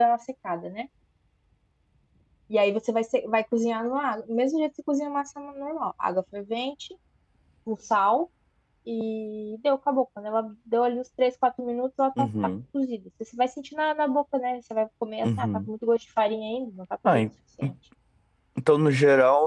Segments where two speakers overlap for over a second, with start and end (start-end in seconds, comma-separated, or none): none